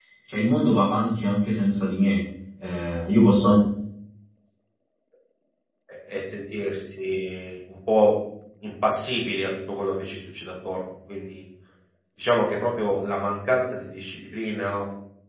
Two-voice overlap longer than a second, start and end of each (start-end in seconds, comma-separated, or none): none